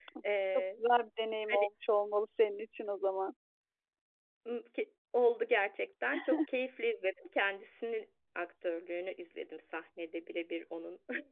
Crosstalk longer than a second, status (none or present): none